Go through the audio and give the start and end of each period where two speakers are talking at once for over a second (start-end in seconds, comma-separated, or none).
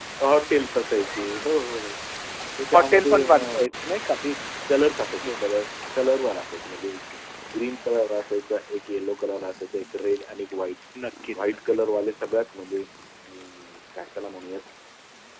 2.7-4.0